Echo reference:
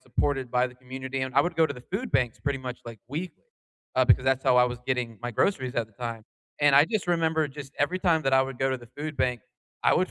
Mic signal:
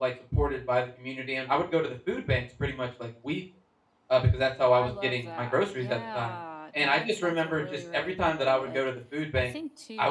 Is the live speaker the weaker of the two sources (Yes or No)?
Yes